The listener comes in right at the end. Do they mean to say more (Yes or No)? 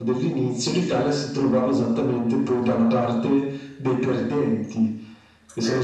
No